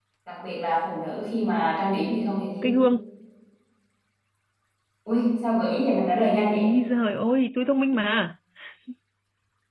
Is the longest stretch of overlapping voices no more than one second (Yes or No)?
Yes